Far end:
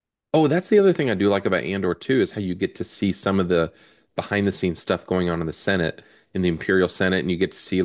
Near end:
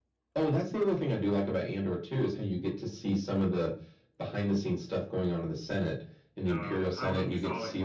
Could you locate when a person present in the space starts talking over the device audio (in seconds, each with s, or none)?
6.4 s